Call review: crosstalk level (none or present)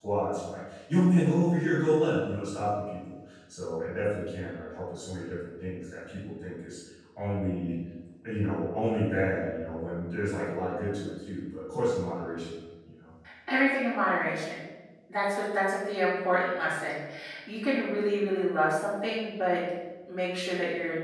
none